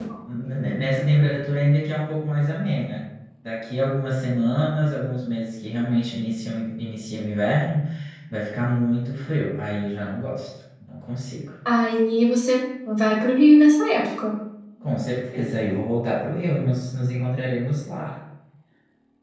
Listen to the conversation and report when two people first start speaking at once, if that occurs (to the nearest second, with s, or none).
none